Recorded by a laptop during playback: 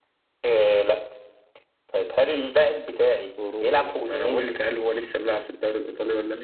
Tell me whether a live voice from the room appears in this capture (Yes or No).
Yes